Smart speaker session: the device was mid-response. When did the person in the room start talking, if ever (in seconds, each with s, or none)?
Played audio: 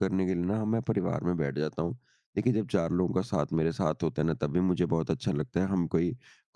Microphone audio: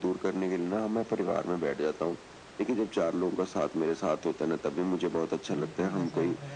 5.5 s